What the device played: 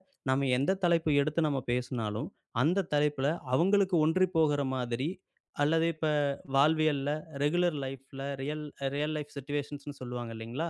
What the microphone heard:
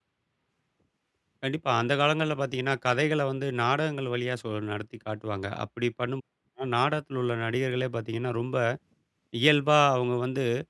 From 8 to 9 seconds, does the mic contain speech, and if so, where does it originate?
user only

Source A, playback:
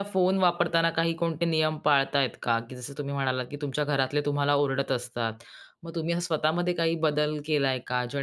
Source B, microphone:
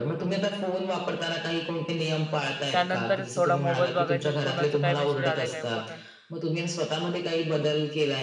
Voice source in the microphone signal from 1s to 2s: echo only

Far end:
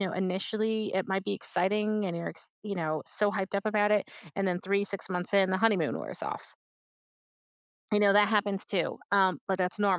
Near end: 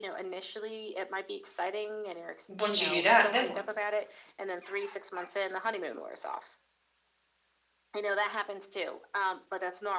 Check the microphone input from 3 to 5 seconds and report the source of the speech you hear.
both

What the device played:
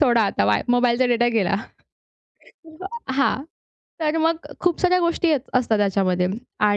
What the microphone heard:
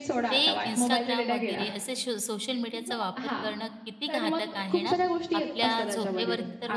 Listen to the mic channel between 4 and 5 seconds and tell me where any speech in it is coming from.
both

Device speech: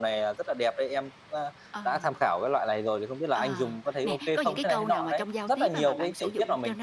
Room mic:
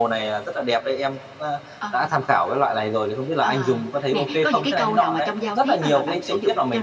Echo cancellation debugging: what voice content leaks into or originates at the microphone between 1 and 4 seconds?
echo only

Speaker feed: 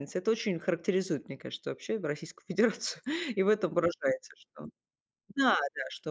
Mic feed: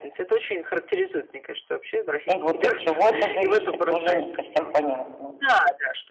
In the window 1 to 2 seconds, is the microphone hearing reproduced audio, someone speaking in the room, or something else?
echo only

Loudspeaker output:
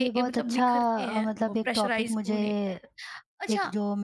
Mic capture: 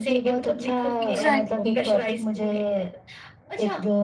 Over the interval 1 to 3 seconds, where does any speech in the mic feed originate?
both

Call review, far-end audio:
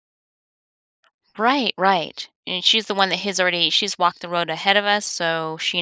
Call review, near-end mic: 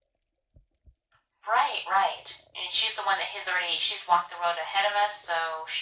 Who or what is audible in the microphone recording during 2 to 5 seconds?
echo only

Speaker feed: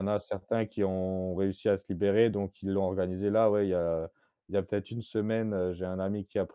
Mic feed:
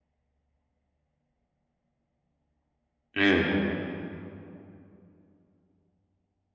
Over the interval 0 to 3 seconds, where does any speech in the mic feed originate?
neither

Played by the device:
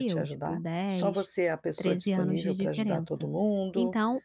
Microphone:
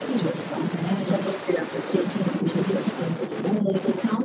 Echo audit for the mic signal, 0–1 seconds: echo only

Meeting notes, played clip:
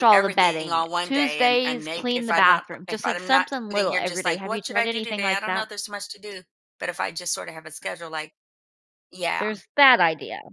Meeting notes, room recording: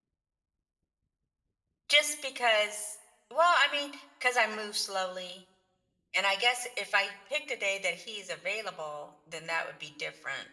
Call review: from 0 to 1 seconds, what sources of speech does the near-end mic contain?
neither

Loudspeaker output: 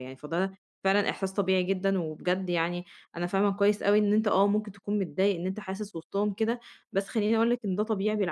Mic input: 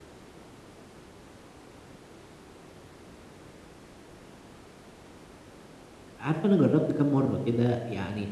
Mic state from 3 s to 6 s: neither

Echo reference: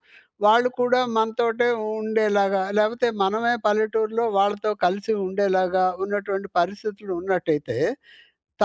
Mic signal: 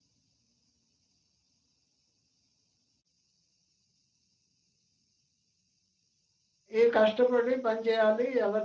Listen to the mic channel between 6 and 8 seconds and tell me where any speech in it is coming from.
user only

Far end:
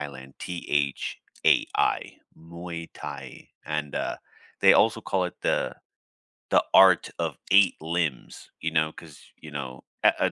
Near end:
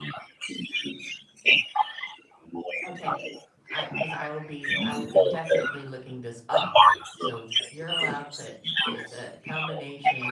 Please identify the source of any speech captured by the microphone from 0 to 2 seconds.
echo only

